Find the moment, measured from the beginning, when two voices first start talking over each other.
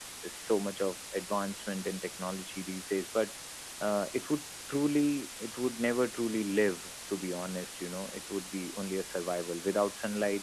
none

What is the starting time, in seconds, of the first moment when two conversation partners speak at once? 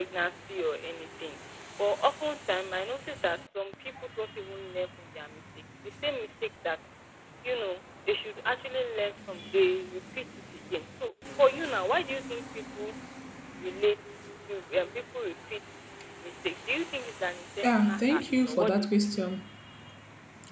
18 s

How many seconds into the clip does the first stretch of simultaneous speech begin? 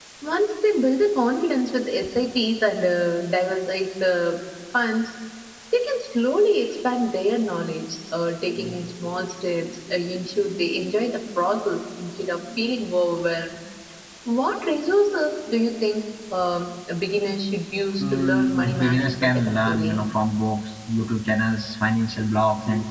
18 s

